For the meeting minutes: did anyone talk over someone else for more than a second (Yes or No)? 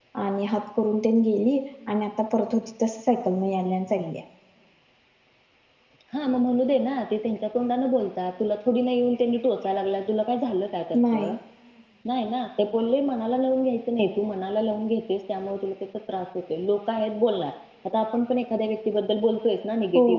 No